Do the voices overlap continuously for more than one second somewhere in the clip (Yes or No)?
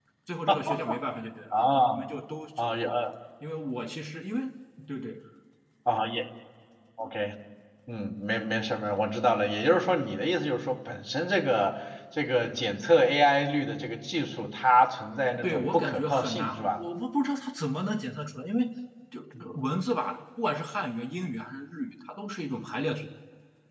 Yes